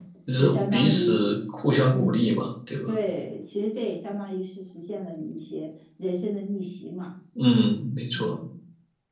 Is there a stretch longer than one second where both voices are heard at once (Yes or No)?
Yes